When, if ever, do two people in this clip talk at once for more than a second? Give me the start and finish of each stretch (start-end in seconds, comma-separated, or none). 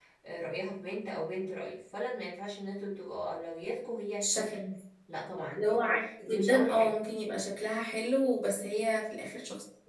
5.6-7.0